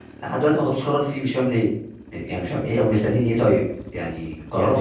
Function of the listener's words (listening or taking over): taking over